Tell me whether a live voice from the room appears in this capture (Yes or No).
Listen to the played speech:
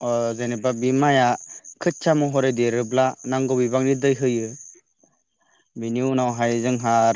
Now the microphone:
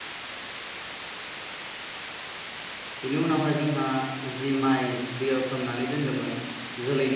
Yes